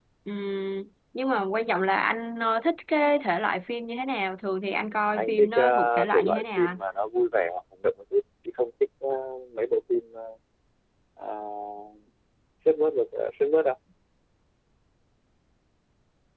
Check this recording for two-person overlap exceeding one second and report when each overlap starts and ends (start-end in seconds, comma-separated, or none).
5.2-6.8